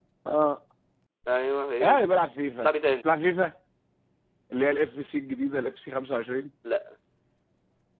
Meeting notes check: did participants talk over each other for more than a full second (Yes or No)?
No